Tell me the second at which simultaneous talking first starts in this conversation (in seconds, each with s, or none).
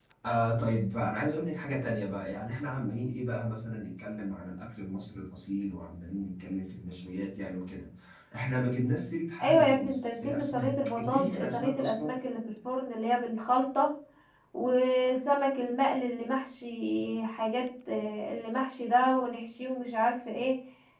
9.4 s